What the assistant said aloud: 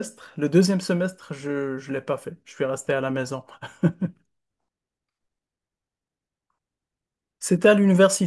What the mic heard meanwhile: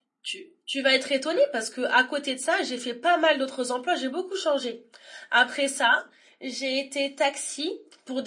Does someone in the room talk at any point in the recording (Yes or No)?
Yes